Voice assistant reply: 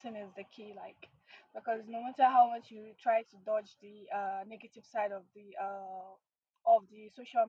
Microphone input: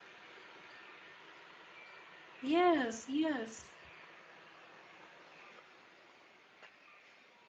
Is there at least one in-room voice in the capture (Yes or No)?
Yes